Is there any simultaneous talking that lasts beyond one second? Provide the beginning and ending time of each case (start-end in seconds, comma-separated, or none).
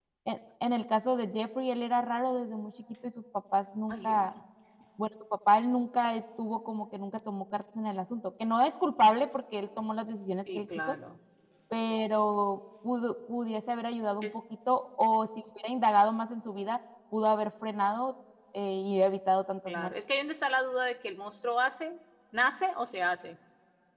none